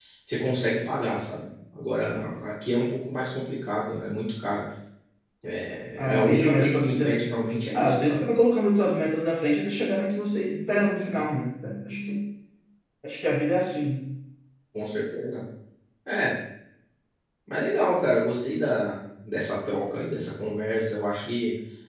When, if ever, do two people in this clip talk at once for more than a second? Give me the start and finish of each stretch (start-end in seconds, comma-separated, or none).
6.0-7.2